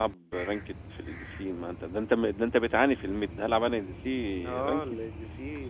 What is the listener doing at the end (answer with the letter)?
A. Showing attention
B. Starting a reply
B